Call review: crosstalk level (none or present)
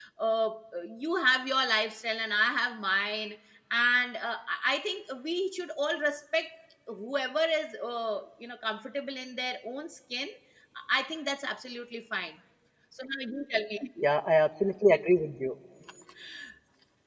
none